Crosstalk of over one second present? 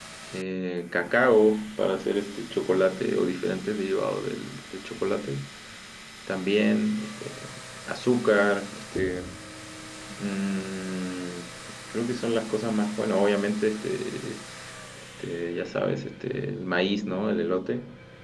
No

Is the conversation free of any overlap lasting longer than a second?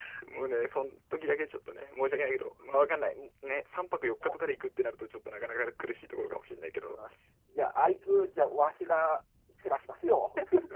Yes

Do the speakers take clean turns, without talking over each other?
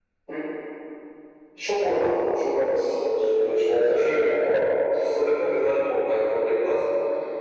No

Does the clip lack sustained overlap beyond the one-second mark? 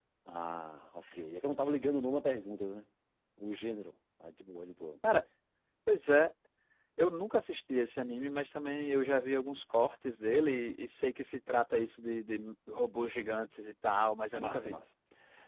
Yes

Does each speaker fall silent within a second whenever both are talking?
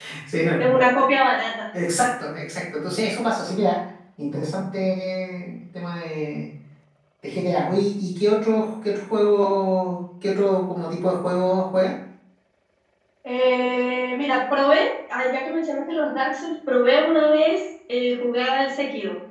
Yes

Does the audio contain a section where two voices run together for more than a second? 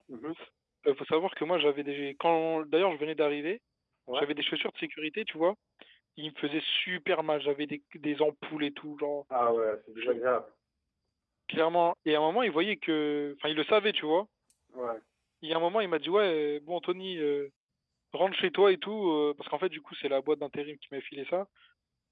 No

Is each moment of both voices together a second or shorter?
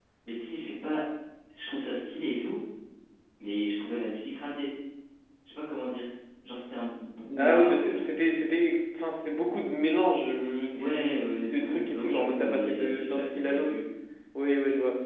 No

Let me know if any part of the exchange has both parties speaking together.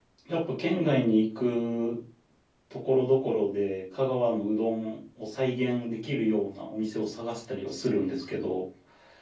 No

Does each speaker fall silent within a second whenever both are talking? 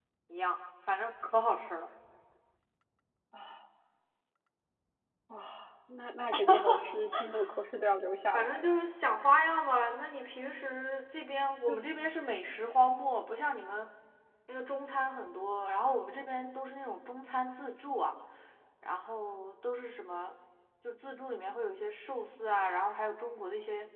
Yes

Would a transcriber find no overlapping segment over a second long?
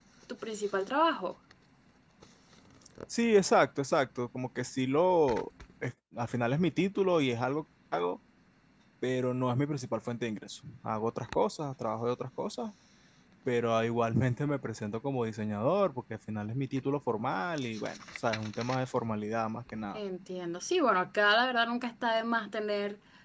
Yes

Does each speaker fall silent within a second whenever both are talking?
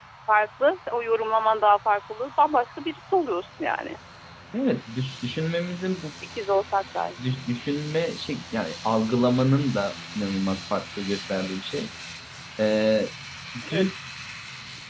Yes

